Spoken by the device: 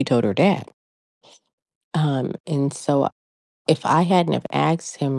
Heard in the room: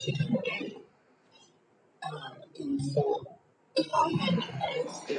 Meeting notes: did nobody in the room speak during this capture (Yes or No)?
No